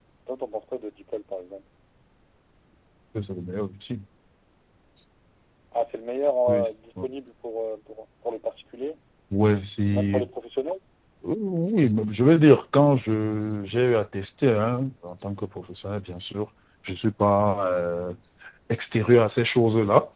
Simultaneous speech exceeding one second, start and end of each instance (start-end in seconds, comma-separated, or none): none